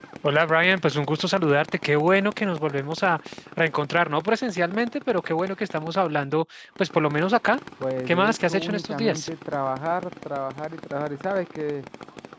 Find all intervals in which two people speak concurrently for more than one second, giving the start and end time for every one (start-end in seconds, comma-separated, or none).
8.1-9.3